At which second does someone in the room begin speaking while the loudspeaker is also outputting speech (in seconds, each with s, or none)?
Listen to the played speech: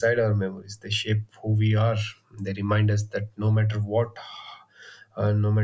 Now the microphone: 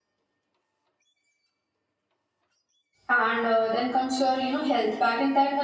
3.1 s